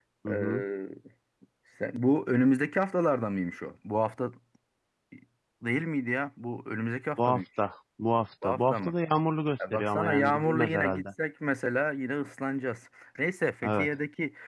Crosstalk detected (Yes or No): Yes